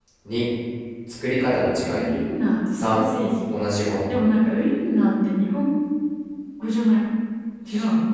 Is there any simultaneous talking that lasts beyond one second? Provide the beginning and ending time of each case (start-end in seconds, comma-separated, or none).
none